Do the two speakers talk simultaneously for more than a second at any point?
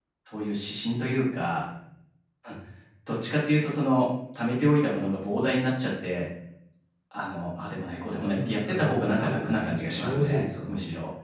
Yes, from 8.3 s

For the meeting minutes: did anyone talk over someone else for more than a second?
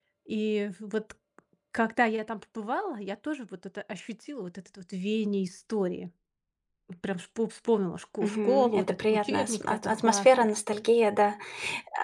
Yes, from 8.2 s

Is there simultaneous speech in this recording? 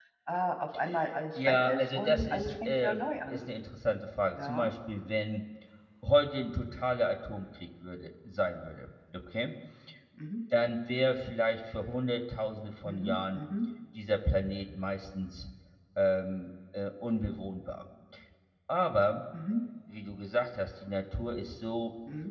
Yes, from 1.4 s

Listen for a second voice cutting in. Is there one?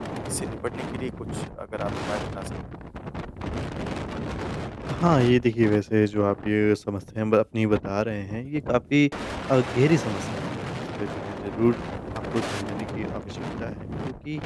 No

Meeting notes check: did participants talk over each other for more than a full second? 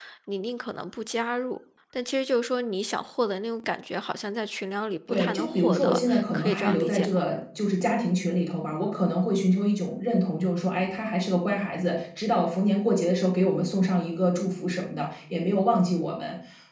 Yes, from 5.1 s

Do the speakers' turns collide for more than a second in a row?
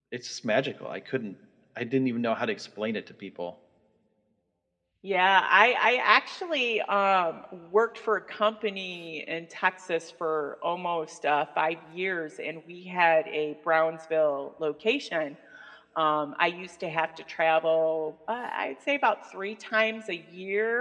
No

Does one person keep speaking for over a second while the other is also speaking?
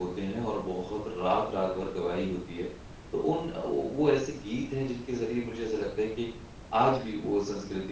No

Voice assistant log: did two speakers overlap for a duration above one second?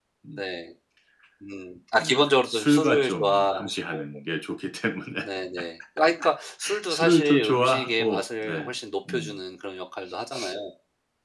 Yes, from 2.0 s

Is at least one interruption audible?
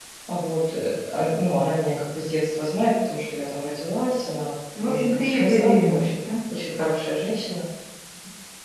Yes, from 4.8 s

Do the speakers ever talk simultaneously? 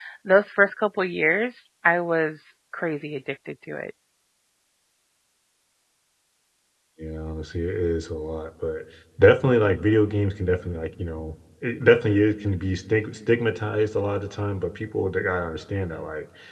No

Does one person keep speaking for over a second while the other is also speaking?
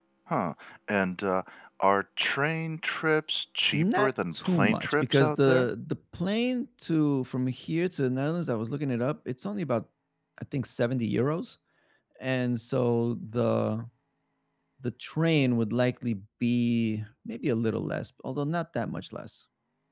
Yes, from 3.7 s

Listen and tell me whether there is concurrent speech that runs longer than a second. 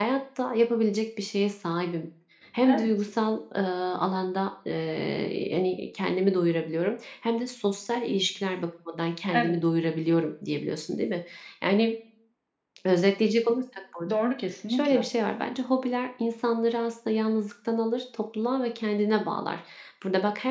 No

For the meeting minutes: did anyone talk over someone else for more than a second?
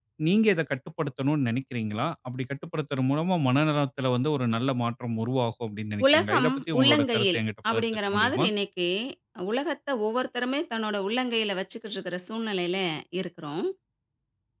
Yes, from 6.0 s

